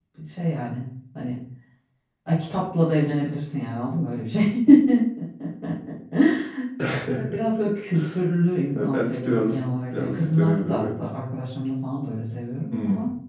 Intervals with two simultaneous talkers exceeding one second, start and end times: 8.8-11.0

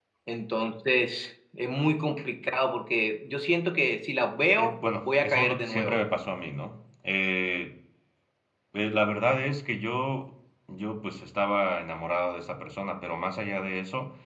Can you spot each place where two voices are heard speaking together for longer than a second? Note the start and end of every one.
4.6-6.0

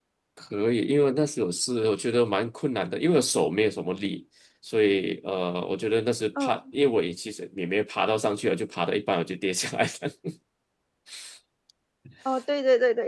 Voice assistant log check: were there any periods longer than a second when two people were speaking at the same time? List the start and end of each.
none

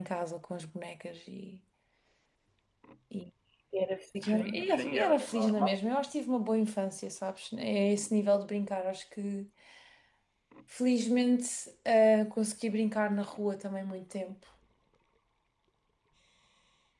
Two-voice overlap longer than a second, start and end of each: 4.2-5.8

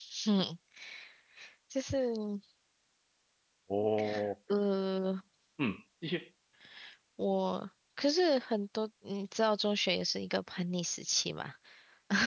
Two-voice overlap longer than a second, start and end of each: none

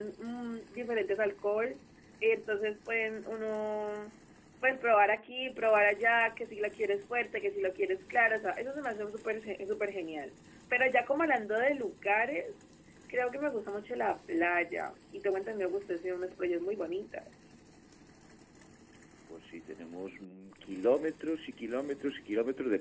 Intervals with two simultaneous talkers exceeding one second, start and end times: none

